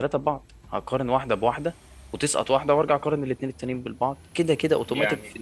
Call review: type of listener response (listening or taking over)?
listening